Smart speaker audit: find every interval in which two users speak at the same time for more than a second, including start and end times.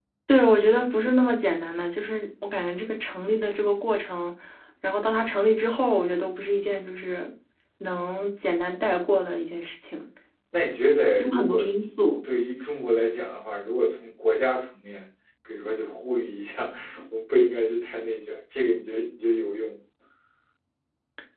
none

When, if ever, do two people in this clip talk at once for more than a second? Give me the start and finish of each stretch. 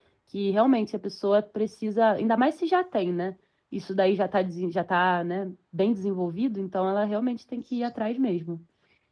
none

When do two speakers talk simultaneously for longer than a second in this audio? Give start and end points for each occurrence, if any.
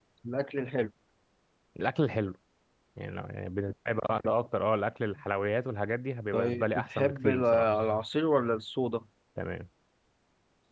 6.3-7.6

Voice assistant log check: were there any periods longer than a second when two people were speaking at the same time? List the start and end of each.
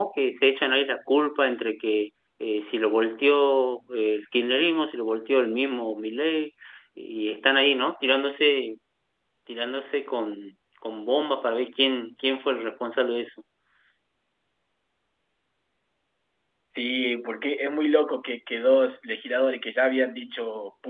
none

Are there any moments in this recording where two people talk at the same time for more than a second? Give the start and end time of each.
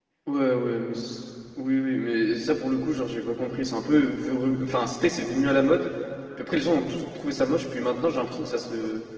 none

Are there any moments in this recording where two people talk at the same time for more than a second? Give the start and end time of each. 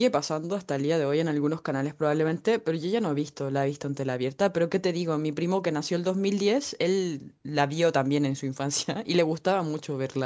none

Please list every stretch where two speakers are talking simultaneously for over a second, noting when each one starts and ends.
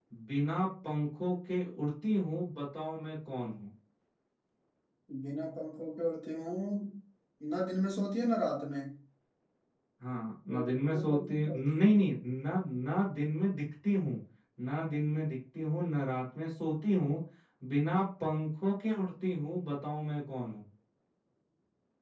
10.6-12.0

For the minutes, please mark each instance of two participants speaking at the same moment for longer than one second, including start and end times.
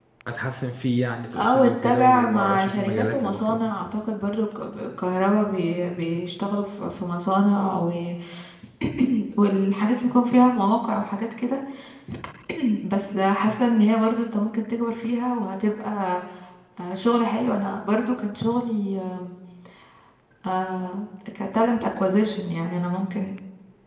1.4-3.6

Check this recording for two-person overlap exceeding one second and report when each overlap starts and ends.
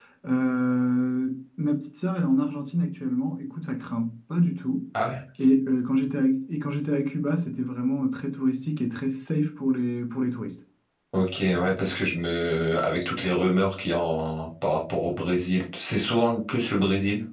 none

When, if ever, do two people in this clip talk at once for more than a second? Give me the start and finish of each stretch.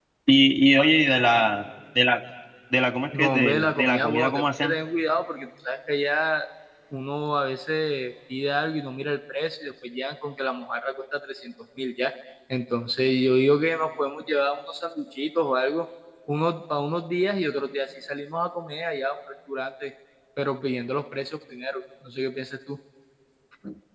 3.1-4.8

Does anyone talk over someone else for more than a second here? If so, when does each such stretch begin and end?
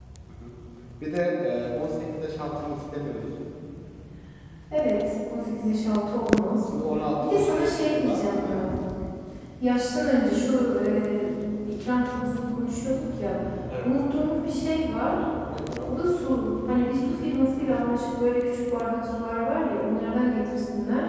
7.2-8.7

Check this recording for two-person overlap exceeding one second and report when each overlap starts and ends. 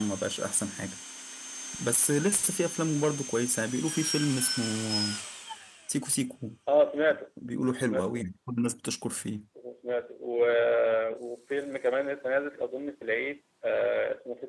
none

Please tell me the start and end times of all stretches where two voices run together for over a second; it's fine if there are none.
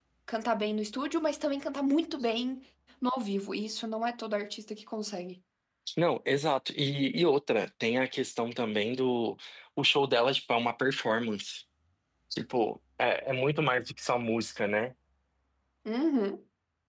none

